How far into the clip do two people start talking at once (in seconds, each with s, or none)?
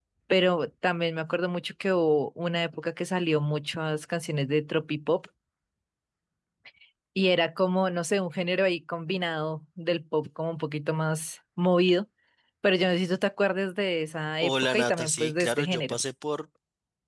14.4 s